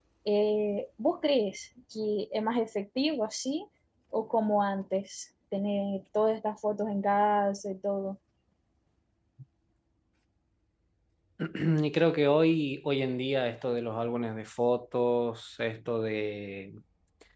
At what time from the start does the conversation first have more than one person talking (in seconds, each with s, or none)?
none